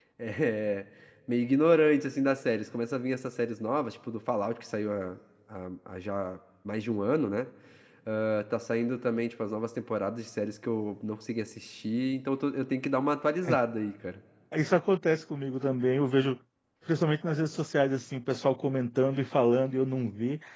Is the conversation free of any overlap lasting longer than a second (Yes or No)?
Yes